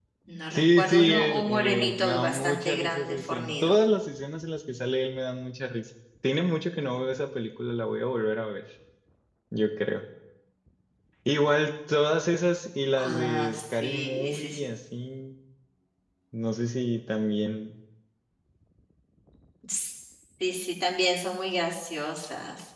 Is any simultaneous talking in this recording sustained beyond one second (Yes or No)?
Yes